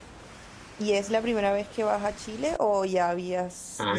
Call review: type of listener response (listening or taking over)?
taking over